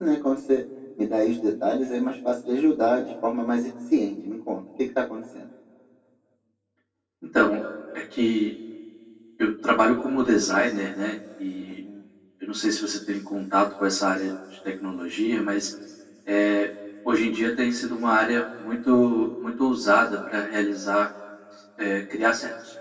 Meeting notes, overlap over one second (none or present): none